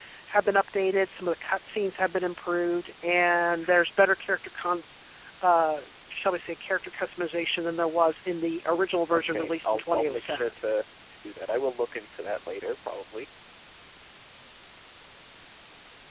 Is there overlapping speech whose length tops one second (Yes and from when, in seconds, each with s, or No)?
Yes, from 9.1 s